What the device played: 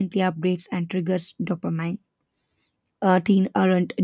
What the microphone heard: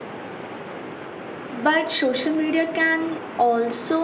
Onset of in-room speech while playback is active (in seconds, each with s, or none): 1.5 s